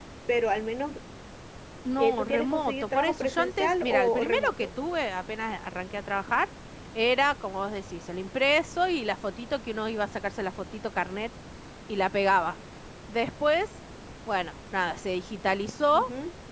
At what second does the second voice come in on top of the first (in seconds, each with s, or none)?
2.0 s